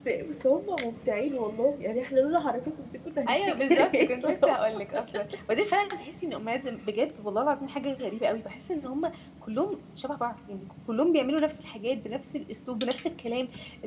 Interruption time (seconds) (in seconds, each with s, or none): 3.3 s